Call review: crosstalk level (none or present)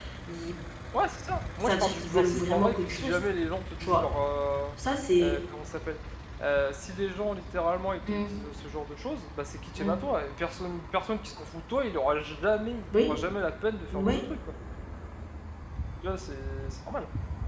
present